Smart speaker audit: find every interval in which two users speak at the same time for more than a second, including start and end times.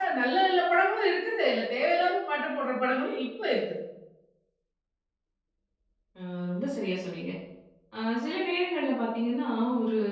none

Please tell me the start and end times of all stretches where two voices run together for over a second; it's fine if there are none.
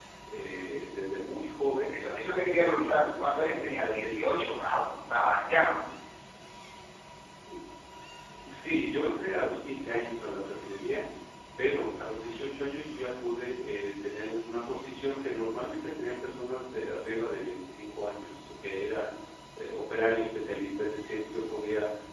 1.9-4.8

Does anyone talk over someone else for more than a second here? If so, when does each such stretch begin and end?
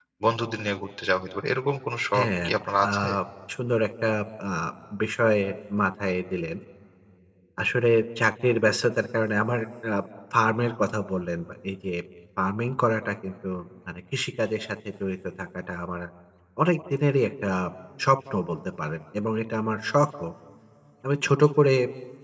none

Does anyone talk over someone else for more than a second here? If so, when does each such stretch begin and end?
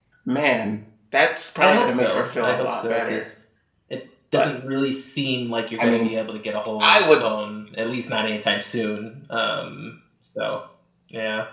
1.6-3.2

